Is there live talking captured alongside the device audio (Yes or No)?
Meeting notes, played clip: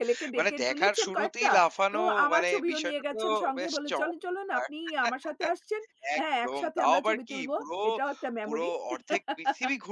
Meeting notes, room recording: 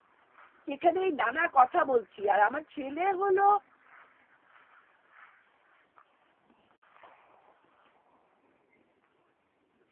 Yes